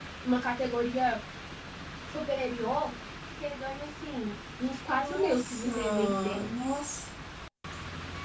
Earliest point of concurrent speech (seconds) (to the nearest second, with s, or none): 5 s